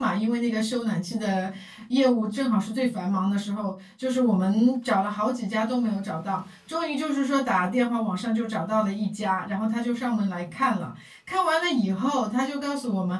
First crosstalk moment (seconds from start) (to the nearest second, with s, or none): none